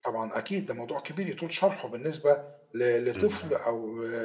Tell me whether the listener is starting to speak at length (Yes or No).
No